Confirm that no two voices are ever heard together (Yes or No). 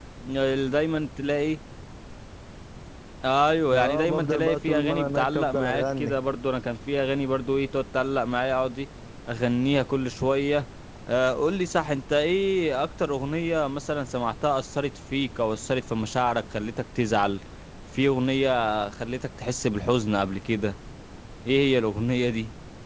No